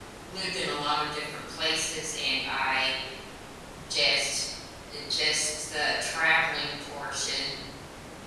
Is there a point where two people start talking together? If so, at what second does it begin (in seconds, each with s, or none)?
none